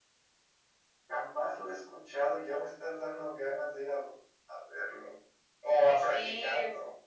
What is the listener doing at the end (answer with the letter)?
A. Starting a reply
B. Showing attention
A